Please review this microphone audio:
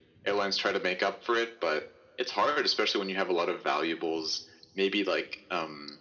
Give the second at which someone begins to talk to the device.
none

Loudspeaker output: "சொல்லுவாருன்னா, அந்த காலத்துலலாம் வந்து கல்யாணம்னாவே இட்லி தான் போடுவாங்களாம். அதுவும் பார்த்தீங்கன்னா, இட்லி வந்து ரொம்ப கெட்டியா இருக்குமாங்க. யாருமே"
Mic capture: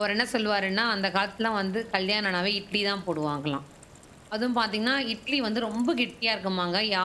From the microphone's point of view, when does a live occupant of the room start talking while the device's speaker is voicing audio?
none

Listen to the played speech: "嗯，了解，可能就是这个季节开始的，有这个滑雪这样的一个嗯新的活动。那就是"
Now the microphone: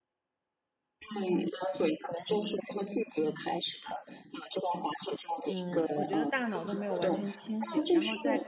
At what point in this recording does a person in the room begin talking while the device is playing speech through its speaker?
5.4 s

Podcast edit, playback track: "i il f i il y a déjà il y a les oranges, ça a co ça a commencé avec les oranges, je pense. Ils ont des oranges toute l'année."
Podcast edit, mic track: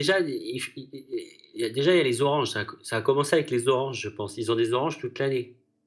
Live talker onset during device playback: none

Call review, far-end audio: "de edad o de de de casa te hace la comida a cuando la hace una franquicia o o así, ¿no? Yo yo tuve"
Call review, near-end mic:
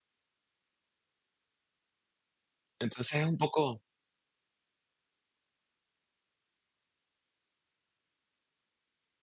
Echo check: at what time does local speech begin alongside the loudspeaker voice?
2.8 s

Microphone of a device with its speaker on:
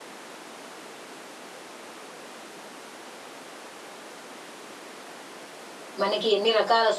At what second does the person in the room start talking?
6.0 s

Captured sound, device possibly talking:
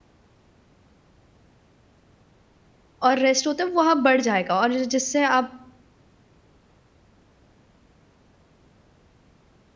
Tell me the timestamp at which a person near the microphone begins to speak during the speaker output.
3.0 s

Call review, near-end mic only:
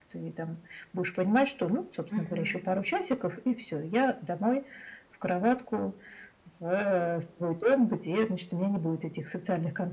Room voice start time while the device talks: 2.1 s

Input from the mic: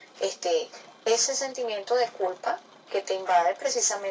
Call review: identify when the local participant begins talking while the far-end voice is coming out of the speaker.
none

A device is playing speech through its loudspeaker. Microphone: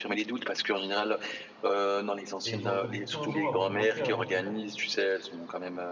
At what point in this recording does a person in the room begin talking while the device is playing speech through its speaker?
2.4 s

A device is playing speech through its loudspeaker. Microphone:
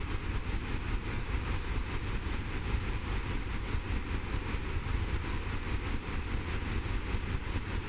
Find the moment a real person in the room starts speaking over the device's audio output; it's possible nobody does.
none

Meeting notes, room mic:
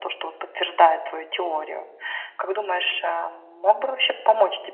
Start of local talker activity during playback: none

